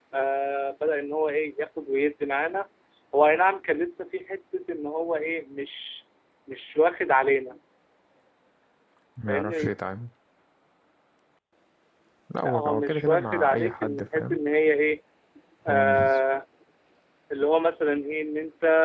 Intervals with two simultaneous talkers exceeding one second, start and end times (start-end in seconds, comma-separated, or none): 12.4-14.4